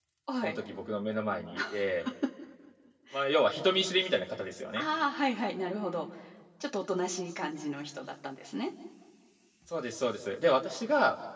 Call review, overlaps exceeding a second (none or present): none